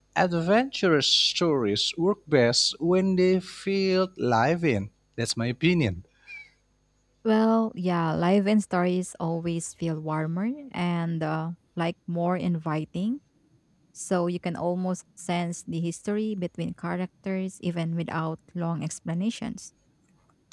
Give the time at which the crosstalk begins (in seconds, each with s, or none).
none